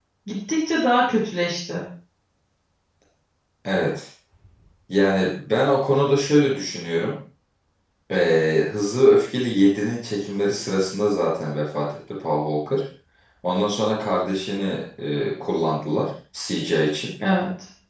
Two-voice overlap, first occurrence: none

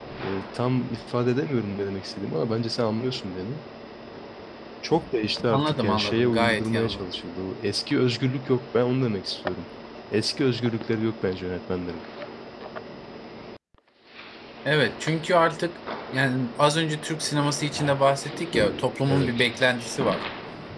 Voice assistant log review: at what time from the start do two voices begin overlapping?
5.5 s

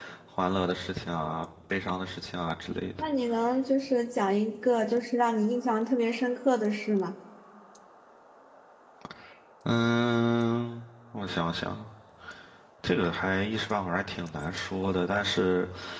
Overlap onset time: none

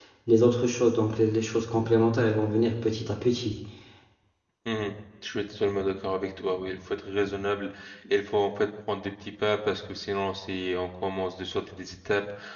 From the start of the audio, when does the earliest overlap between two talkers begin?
none

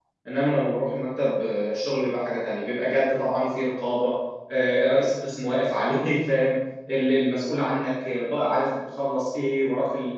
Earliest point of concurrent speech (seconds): none

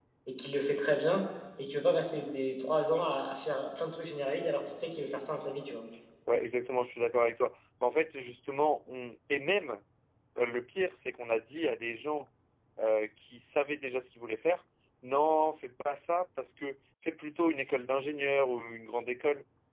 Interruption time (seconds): none

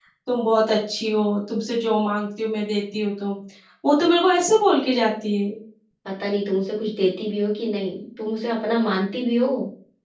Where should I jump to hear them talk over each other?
none

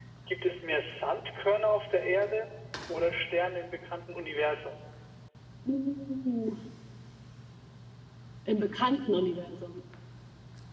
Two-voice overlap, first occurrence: none

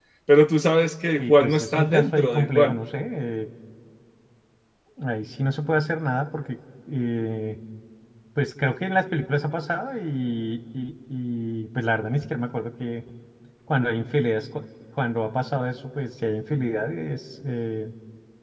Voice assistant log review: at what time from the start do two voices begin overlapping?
1.2 s

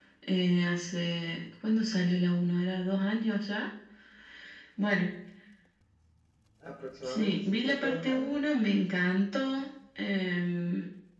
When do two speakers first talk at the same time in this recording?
7.1 s

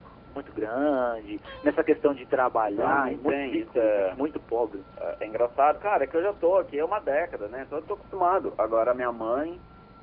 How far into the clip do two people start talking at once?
2.6 s

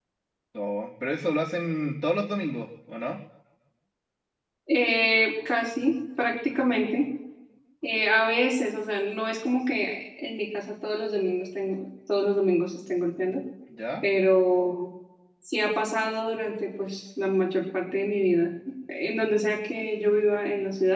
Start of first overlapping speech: none

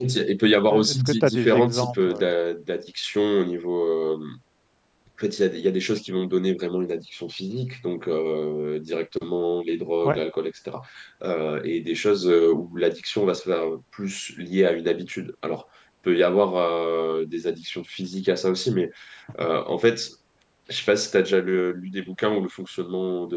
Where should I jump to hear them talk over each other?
0.7 s

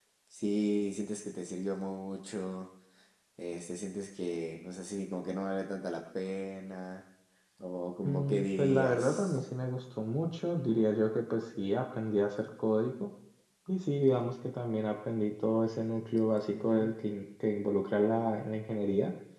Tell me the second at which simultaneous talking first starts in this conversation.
8.0 s

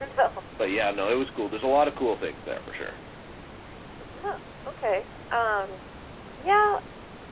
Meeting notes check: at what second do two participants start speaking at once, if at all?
none

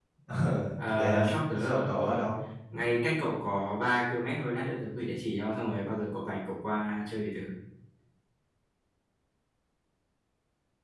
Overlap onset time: 0.8 s

